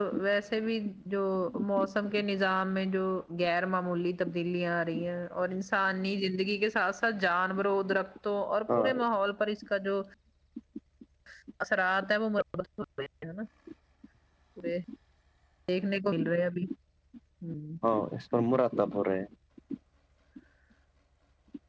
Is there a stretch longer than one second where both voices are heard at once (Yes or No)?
No